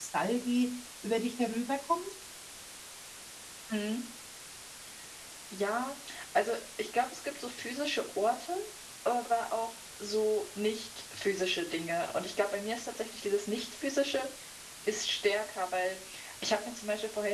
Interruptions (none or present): none